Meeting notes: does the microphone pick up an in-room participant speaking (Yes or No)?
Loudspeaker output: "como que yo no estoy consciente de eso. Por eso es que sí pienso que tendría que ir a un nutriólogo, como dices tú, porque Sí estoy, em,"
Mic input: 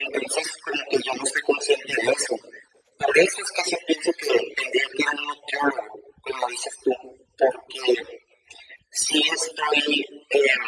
No